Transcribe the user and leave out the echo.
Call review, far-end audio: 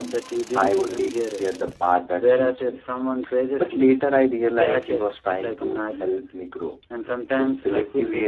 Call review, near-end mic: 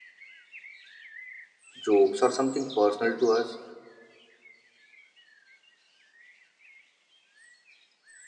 jokes, or something personal to us,

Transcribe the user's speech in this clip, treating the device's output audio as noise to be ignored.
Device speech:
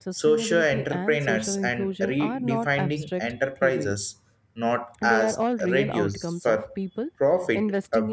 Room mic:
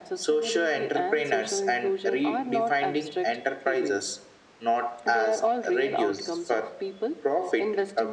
none

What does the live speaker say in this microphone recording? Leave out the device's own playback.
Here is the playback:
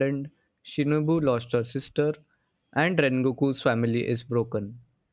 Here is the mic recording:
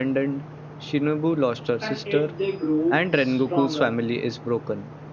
and it they grow stronger

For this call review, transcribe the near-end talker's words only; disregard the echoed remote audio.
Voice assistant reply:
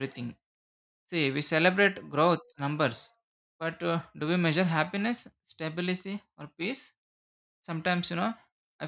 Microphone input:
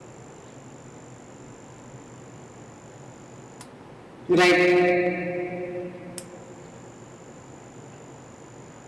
Right.

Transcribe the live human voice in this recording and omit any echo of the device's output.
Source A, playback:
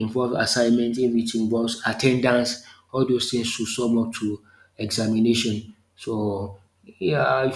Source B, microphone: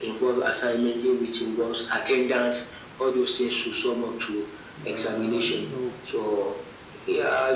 uh, you know,

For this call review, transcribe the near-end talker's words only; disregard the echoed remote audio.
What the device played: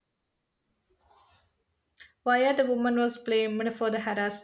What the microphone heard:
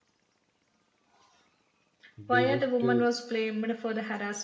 They just uh,

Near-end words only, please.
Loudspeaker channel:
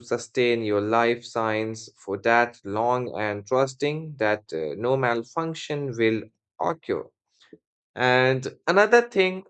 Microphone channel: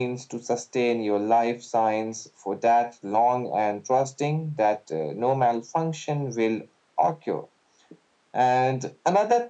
none

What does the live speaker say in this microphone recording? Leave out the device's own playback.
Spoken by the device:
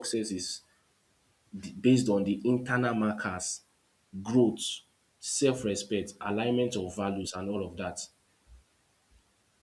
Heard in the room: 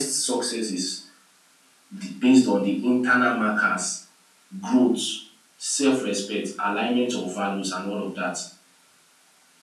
none

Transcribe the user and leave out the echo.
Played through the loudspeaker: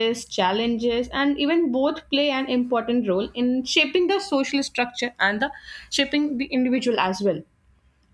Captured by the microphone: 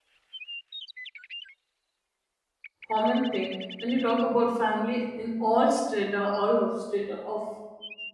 common thing. When you talk about family in all strata, all of strata of

